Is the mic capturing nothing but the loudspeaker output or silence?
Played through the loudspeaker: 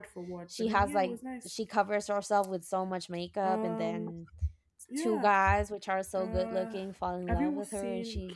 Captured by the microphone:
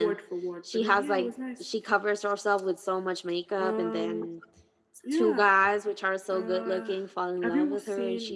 Yes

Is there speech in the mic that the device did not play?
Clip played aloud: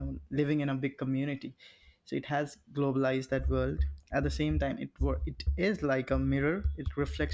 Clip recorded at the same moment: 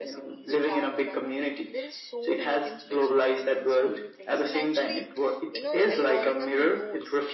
Yes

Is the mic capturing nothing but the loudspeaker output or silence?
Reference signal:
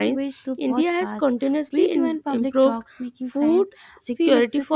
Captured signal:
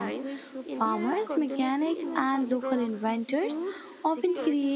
No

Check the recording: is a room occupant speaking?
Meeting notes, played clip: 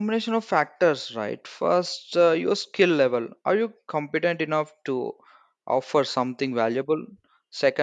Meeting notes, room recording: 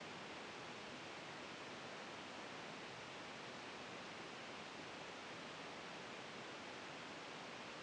No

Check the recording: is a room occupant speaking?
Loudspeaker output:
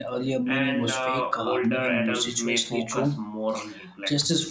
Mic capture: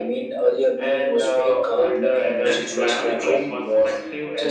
Yes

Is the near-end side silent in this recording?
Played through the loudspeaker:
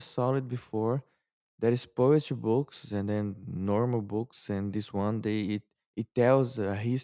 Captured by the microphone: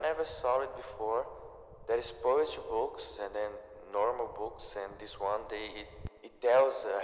Yes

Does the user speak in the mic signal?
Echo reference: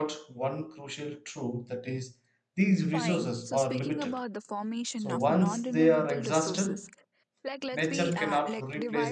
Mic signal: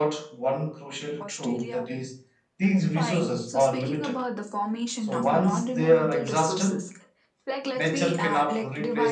Yes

